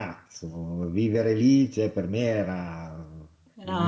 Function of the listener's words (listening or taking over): listening